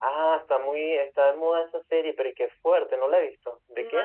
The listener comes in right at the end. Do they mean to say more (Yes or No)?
Yes